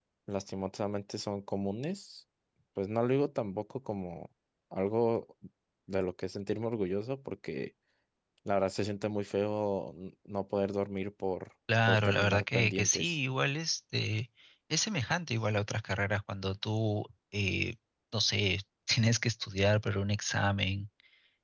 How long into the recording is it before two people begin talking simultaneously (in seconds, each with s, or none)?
11.7 s